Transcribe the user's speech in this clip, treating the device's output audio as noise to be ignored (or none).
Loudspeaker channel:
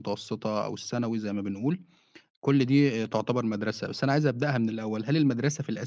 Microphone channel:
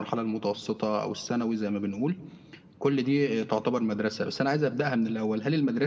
none